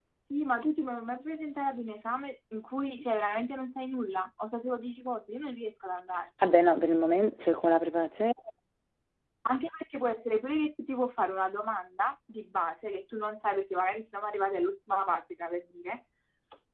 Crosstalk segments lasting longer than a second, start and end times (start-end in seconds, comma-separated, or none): none